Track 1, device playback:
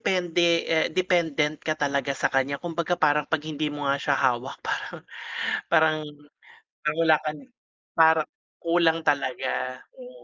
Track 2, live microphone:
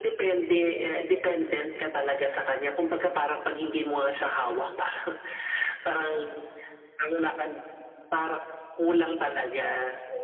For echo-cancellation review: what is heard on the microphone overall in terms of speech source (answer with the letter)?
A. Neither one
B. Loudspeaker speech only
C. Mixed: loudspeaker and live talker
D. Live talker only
C